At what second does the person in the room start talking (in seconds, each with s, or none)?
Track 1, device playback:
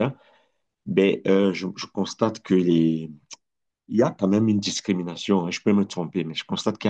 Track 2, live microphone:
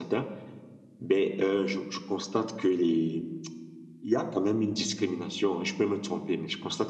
none